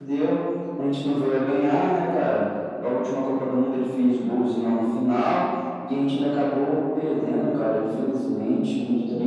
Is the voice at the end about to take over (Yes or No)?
No